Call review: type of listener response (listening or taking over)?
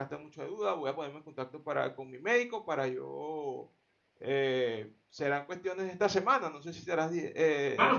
taking over